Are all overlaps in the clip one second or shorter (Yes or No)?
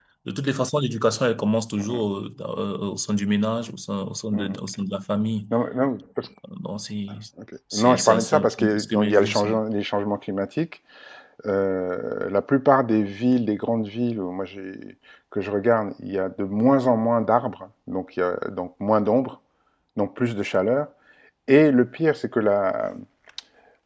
No